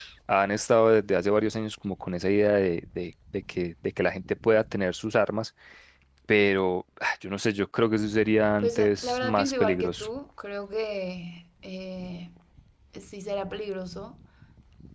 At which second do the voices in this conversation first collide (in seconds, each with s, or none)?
8.6 s